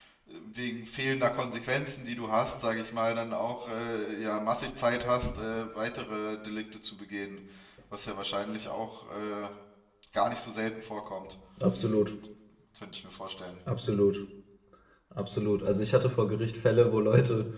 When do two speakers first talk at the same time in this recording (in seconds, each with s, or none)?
none